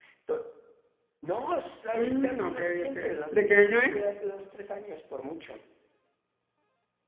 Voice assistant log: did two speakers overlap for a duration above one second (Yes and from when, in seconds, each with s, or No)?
Yes, from 1.9 s